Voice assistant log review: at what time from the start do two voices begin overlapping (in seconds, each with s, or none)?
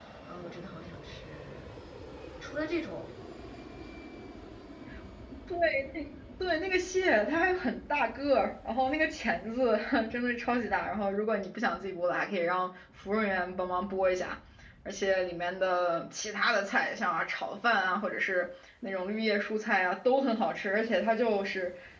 none